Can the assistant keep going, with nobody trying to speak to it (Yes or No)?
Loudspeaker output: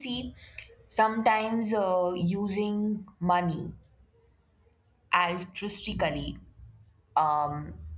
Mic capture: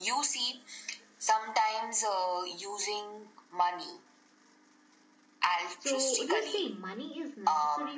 No